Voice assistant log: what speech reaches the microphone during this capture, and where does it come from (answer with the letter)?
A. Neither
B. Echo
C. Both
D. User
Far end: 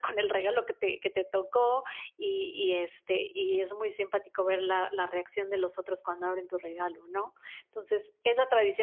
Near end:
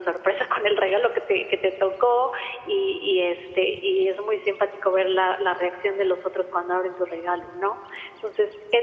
B